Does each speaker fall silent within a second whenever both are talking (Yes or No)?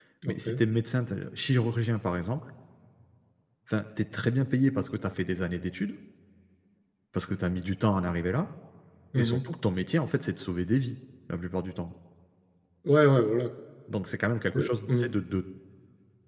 Yes